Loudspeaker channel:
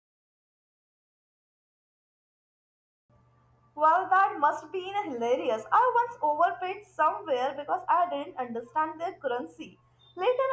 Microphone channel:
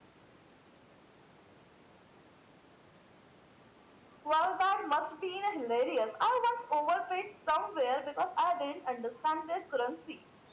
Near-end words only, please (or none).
none